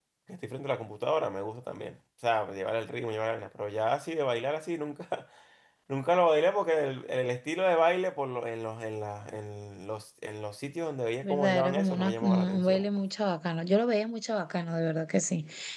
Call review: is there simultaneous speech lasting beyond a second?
Yes, from 11.2 s

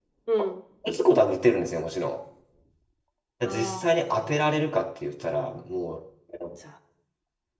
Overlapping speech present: Yes, from 3.5 s

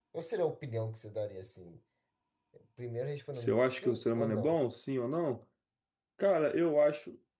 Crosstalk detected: Yes, from 3.4 s

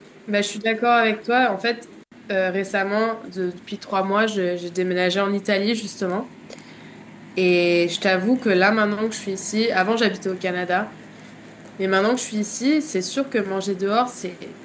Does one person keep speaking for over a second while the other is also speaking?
No

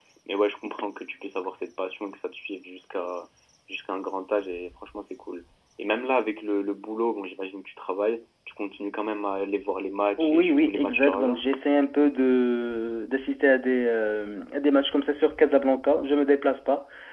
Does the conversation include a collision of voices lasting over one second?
Yes, from 10.2 s

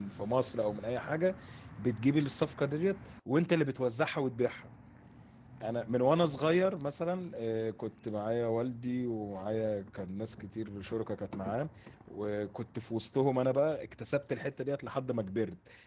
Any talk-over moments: No

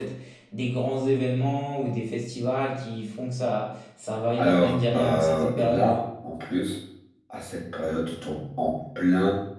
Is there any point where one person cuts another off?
Yes, from 4.4 s

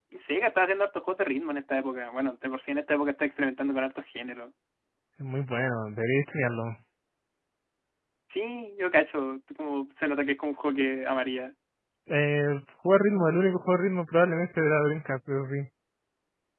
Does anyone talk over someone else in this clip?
No

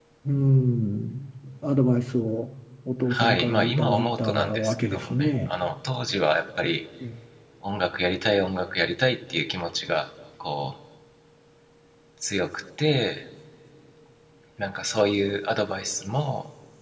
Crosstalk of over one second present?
Yes, from 3.1 s

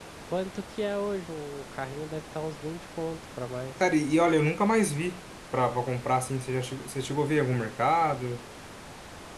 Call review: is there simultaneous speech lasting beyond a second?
No

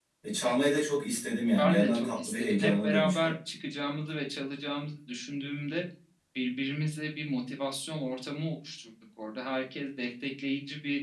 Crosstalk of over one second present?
Yes, from 1.6 s

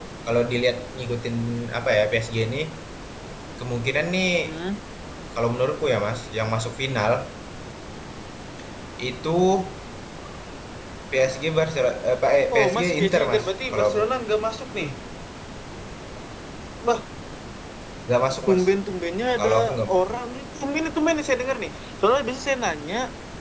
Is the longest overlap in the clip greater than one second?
Yes, from 12.5 s

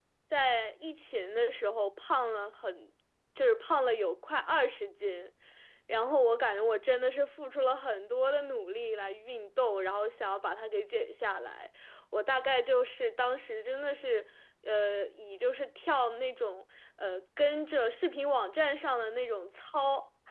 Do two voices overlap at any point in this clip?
No

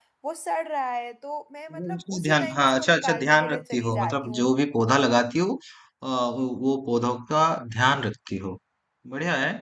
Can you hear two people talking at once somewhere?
Yes, from 1.7 s

